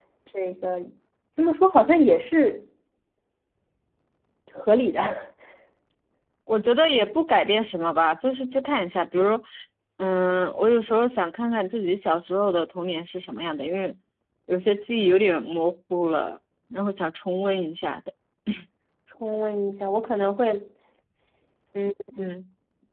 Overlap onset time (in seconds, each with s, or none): none